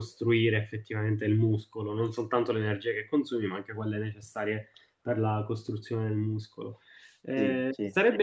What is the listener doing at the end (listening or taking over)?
listening